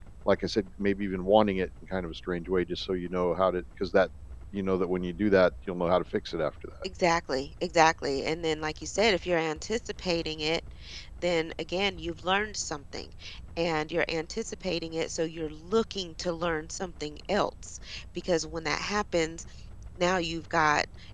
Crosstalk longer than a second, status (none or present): none